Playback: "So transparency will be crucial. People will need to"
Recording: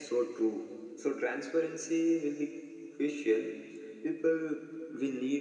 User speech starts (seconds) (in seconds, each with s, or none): none